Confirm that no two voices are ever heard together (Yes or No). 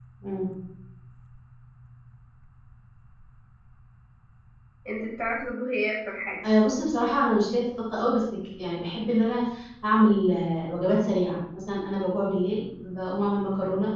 Yes